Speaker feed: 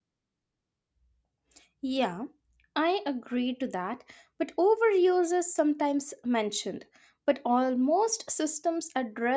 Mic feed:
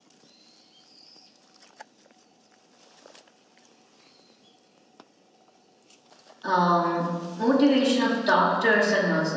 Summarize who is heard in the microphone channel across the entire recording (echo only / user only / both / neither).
user only